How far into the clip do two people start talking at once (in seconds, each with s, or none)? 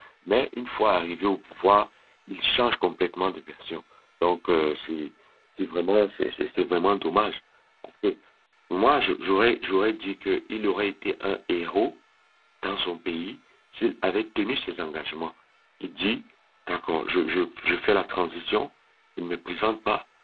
none